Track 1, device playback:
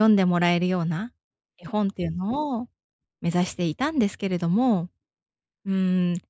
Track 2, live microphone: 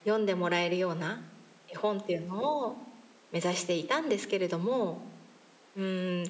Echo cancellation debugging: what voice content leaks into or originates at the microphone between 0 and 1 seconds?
echo only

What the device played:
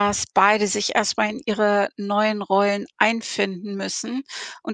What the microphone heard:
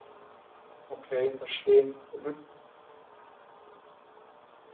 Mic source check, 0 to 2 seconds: user only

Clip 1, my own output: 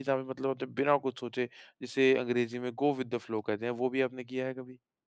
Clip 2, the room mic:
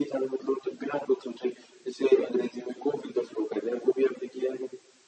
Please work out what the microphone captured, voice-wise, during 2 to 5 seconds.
echo only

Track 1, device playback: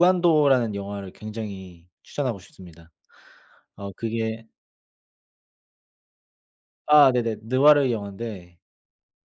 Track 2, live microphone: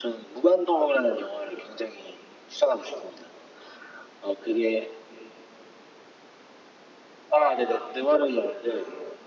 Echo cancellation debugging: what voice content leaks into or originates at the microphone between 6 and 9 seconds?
echo only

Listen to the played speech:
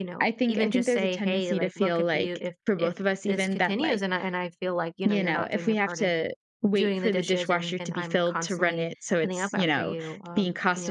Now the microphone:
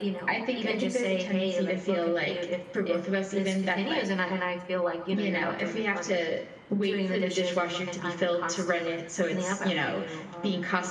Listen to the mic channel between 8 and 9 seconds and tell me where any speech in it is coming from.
echo only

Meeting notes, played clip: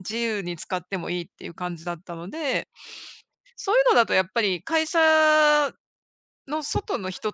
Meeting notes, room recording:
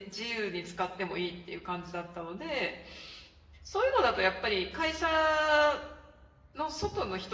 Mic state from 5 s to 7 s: echo only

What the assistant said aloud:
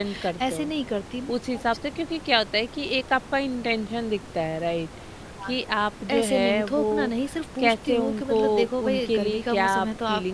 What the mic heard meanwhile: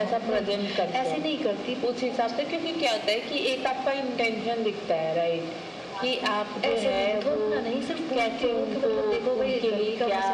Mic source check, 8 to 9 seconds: echo only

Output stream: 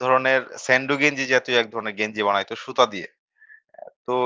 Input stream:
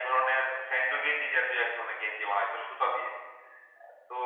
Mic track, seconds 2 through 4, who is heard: echo only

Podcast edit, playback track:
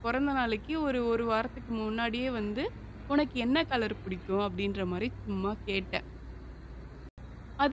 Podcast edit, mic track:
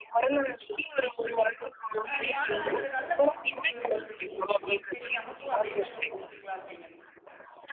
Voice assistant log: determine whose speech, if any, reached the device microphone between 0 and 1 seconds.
echo only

